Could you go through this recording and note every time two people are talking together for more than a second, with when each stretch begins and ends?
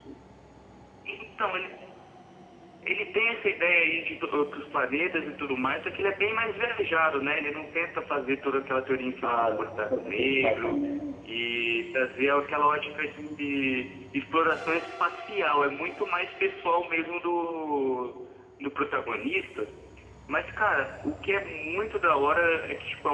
9.2-10.8

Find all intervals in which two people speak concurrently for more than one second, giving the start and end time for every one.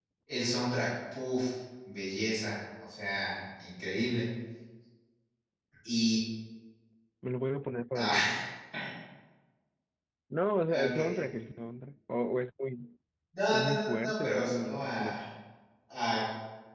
13.5-15.1

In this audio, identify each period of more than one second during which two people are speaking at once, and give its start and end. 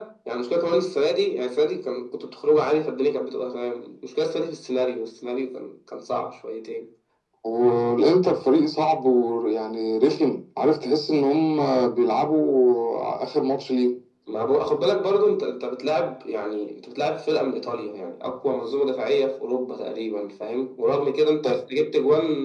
none

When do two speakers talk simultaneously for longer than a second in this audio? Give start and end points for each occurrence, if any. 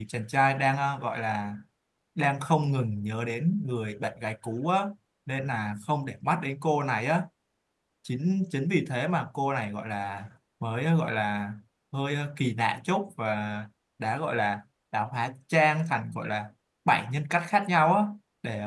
none

